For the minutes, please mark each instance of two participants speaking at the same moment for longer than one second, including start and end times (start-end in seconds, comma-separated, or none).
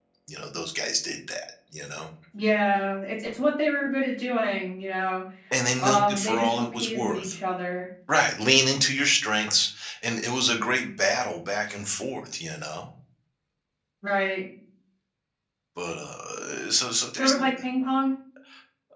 5.8-7.3